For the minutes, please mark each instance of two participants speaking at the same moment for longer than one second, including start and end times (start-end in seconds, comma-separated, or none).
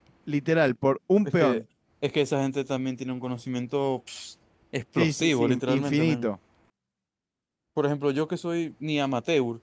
5.0-6.3